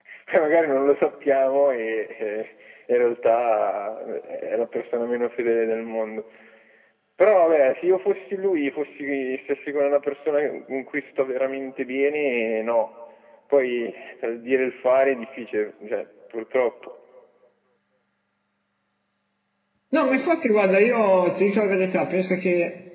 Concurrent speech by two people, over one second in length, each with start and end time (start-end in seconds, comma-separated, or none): none